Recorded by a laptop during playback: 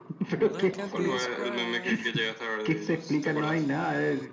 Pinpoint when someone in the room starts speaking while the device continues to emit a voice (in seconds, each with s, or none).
0.4 s